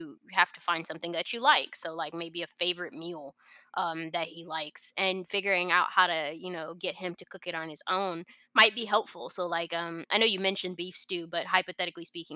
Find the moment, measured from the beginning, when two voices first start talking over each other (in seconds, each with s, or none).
none